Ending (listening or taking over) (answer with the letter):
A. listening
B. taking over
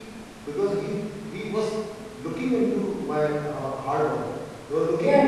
A